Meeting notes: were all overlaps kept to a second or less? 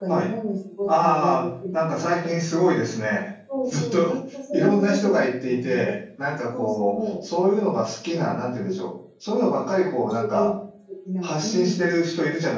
No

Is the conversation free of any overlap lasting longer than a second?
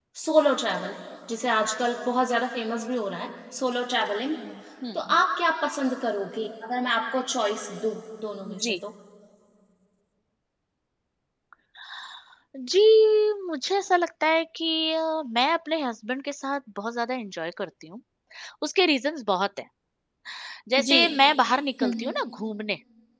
Yes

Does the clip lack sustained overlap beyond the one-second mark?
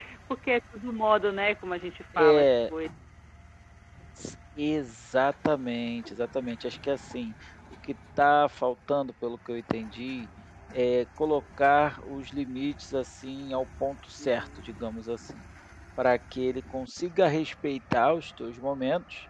Yes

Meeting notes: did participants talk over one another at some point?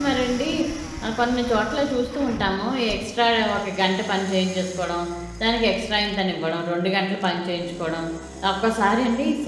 No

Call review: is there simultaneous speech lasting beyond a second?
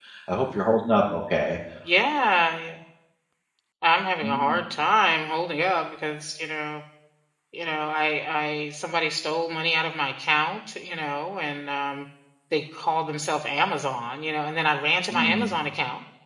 No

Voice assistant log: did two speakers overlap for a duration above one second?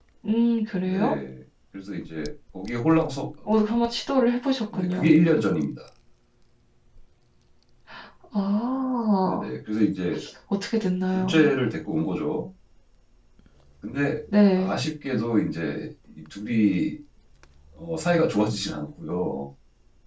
No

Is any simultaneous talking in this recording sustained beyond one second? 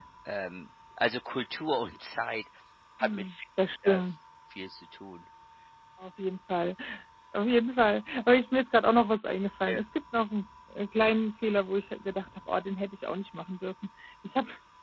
No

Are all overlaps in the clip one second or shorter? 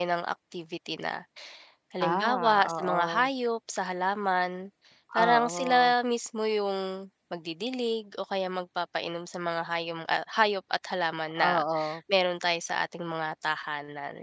No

